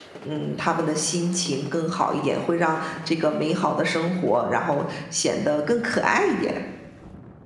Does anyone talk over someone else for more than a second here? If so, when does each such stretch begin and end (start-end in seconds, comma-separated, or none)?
none